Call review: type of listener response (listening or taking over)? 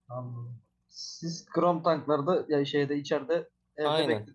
taking over